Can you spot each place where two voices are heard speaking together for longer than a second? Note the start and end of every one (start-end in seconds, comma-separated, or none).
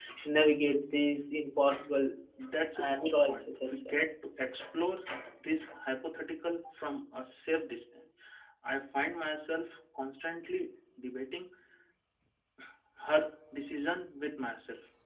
2.8-4.0